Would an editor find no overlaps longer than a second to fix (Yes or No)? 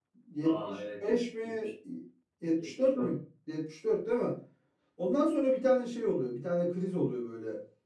No